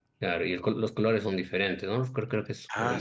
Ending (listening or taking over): taking over